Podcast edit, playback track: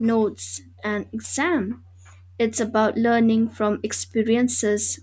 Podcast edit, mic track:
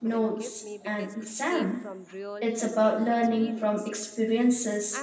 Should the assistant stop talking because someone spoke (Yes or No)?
Yes